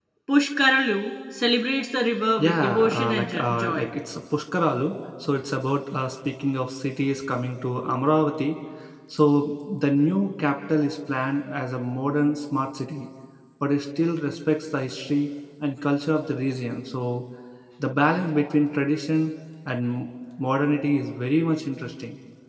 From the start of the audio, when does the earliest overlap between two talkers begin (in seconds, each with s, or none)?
2.4 s